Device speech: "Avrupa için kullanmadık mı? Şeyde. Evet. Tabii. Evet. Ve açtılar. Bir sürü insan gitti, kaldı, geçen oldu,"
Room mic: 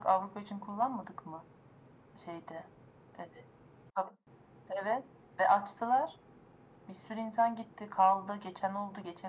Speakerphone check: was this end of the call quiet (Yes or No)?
Yes